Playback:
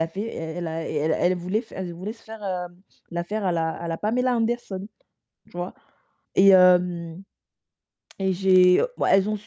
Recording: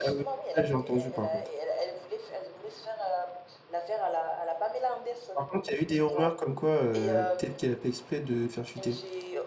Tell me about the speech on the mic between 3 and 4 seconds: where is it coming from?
echo only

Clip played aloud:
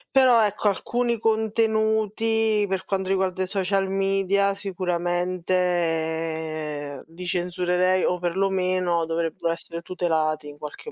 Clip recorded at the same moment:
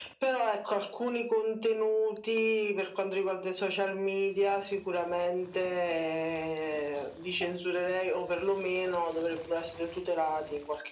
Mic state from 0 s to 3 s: echo only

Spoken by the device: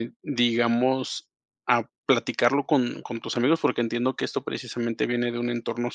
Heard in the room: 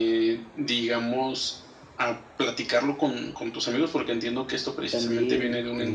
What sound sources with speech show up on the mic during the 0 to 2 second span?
echo only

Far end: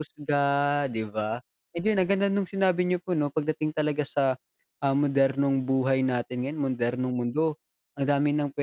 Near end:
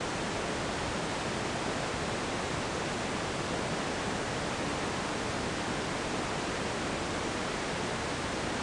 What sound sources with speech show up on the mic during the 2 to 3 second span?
neither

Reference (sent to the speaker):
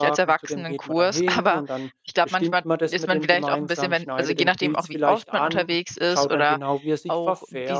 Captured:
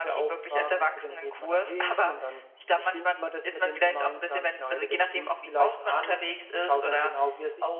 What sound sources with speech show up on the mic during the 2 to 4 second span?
echo only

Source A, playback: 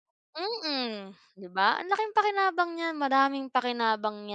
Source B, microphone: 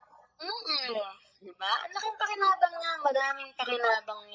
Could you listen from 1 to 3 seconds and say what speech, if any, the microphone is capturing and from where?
echo only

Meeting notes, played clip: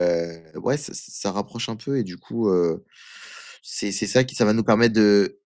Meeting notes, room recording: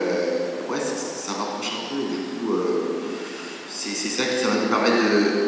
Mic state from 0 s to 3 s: echo only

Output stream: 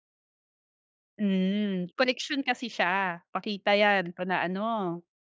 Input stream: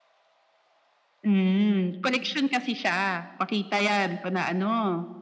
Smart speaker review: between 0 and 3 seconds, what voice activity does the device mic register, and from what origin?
echo only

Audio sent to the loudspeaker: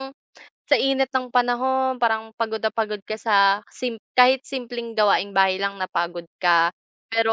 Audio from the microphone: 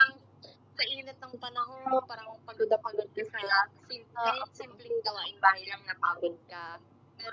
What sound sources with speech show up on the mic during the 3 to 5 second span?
both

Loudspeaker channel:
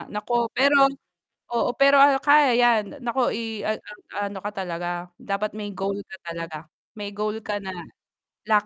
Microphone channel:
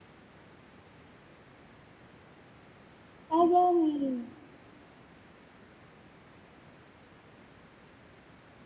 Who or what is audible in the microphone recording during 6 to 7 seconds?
neither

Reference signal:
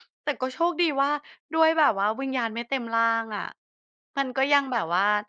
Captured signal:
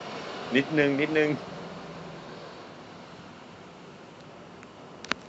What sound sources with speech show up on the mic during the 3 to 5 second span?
neither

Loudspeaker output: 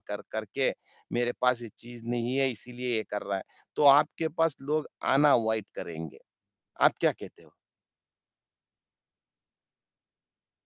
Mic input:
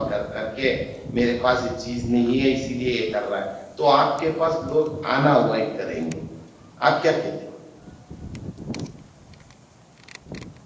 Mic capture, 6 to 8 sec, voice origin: echo only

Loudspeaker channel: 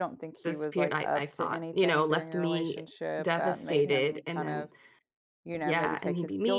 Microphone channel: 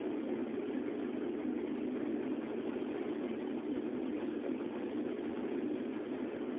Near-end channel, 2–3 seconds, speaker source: neither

